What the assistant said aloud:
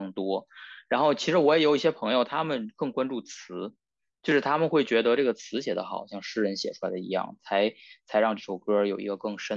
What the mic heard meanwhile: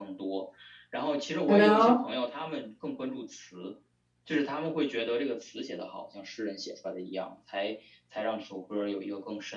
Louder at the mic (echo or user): user